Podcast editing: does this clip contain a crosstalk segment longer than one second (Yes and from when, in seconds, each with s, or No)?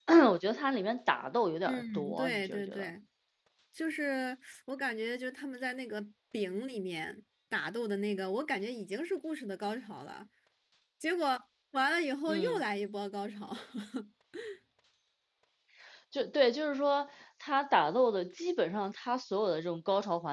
Yes, from 1.7 s